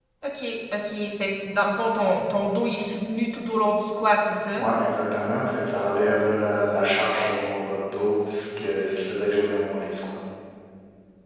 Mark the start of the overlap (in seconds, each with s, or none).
none